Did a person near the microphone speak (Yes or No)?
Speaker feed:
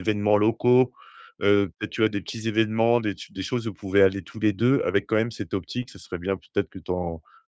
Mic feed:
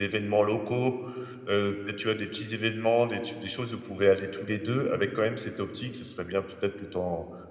No